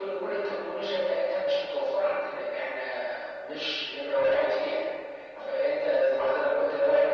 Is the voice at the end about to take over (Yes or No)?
No